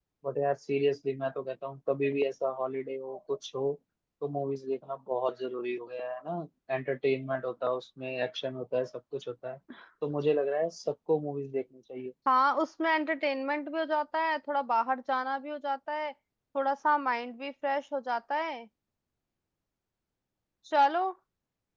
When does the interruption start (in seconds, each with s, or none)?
none